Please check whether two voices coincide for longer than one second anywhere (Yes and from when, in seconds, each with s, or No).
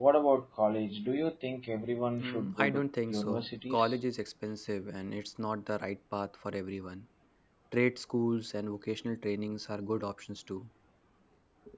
Yes, from 2.2 s